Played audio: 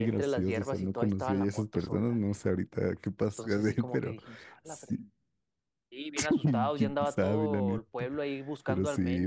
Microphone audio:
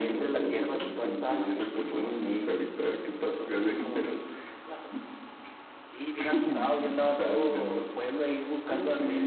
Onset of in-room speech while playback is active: 1.9 s

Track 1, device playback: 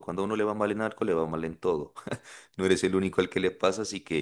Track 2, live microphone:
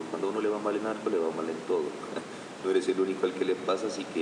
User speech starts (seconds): none

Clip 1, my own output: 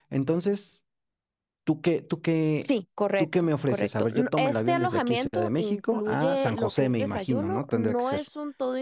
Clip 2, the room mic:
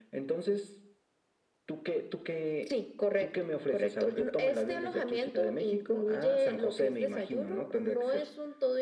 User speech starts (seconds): none

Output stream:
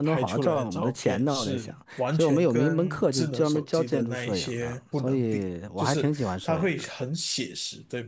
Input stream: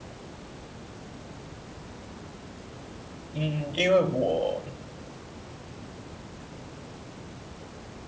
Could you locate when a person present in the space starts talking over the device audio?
3.3 s

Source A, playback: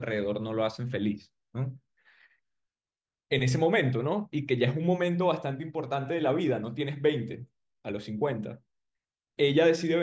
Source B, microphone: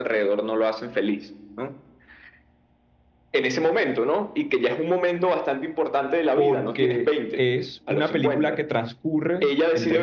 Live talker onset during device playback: 6.3 s

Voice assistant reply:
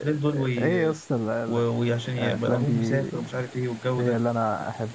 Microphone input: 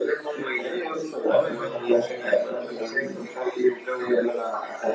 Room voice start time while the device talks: 1.3 s

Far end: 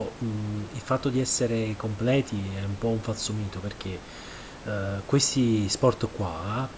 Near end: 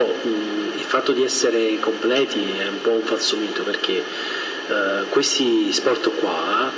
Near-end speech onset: none

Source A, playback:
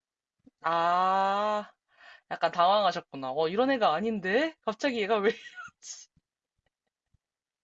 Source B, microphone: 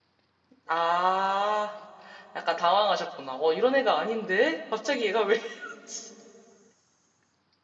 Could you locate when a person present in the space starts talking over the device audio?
none

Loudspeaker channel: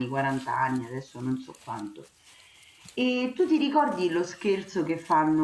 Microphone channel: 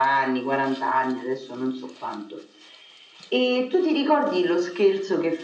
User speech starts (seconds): none

